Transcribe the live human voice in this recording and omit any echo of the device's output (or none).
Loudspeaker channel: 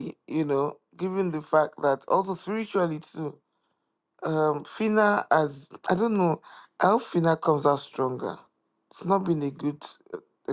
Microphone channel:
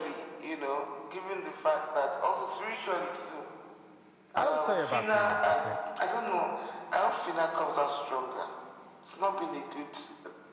i will tell you about p1 okay